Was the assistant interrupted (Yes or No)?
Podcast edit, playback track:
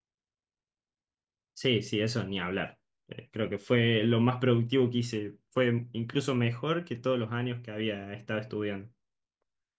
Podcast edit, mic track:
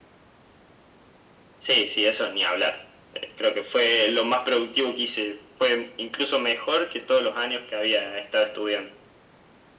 No